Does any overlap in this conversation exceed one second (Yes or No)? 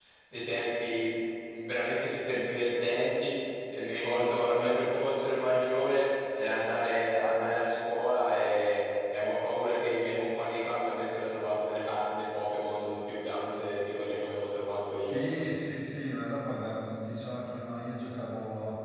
No